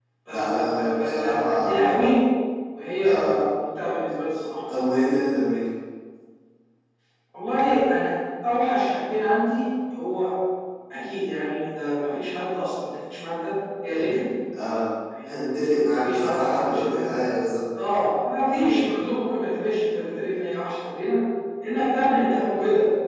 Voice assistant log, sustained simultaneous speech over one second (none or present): present